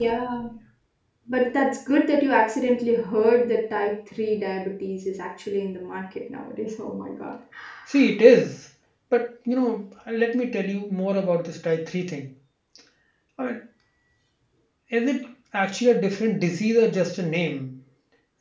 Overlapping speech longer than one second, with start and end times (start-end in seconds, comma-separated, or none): none